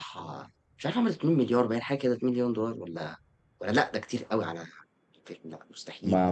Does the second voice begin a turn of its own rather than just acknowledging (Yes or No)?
Yes